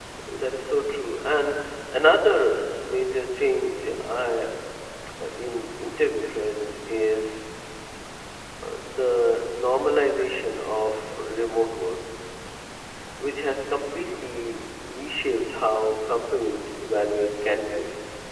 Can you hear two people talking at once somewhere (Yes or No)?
No